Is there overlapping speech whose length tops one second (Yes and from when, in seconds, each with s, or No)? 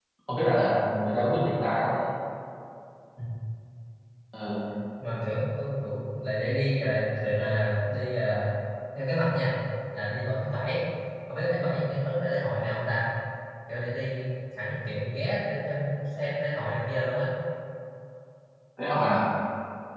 No